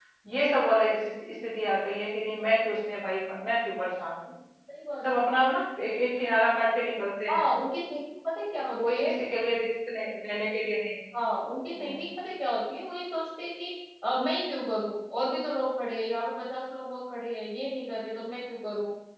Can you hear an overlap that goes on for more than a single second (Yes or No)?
No